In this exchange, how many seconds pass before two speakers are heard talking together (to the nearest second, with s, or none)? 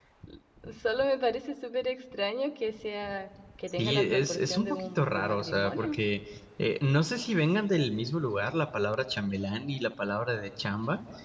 4 s